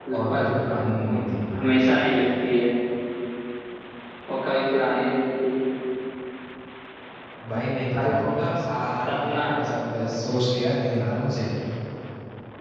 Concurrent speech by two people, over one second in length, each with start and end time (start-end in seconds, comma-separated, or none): none